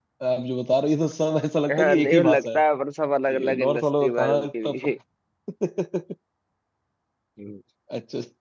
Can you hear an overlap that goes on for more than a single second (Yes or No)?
Yes